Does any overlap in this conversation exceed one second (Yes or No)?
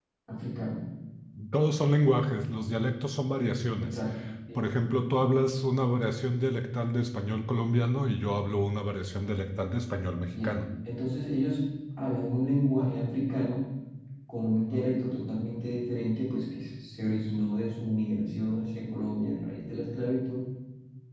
No